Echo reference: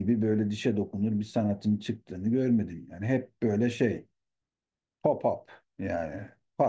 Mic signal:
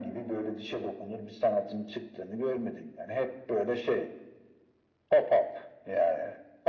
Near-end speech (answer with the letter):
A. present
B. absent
B